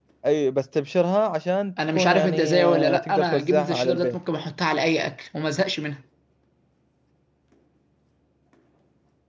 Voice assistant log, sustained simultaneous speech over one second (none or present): present